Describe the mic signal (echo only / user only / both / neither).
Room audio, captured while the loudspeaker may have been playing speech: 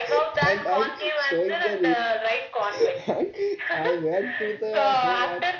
both